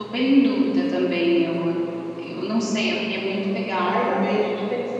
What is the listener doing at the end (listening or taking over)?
taking over